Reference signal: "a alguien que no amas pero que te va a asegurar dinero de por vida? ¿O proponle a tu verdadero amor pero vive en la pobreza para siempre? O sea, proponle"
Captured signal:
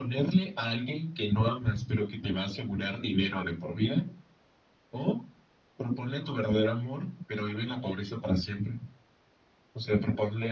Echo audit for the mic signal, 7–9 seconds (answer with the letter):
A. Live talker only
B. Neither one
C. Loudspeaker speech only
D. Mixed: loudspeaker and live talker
C